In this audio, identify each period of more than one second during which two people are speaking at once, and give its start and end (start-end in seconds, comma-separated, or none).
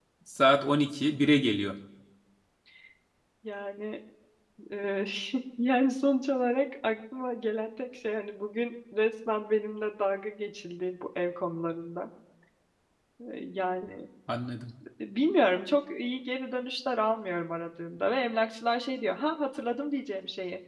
none